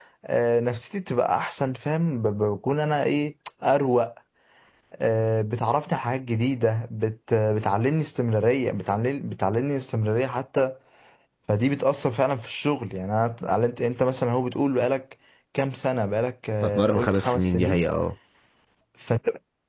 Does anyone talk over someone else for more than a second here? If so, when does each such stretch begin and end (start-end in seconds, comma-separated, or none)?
16.6-17.9